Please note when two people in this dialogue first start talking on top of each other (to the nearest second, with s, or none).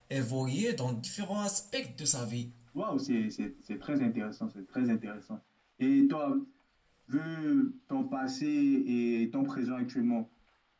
none